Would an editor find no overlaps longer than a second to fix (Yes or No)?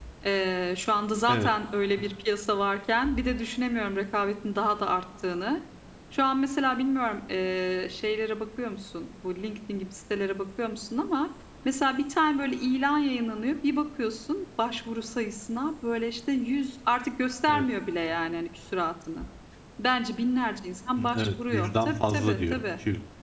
No